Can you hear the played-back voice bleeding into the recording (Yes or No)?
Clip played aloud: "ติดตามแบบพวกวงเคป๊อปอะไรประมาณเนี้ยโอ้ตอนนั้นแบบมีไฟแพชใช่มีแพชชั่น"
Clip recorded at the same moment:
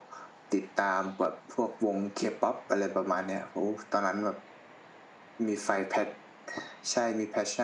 Yes